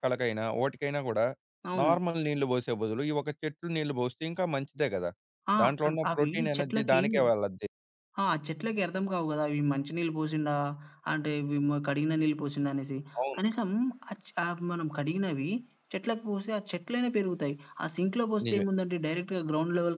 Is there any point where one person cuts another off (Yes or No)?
Yes